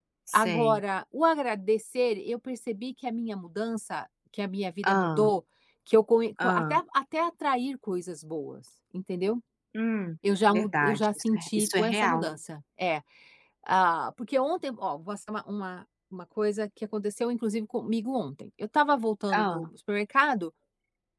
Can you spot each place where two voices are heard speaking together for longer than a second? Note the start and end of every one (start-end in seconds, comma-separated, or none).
10.5-12.3